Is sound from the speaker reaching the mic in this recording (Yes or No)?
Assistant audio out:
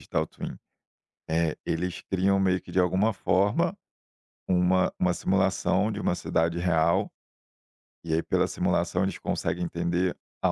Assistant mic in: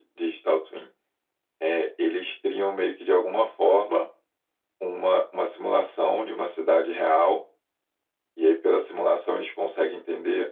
Yes